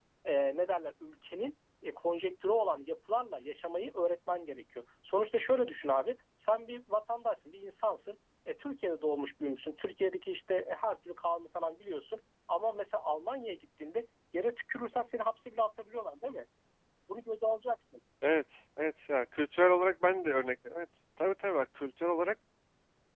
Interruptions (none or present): none